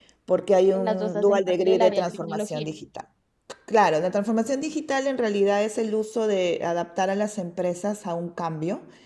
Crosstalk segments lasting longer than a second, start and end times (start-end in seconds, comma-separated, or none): 0.7-2.8